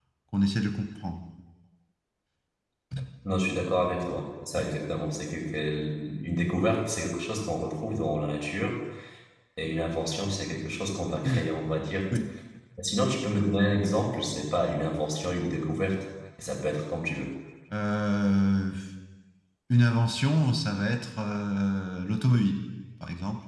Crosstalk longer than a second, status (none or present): none